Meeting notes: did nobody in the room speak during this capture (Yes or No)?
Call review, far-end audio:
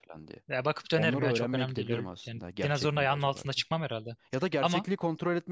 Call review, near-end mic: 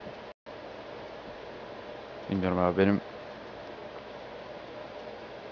No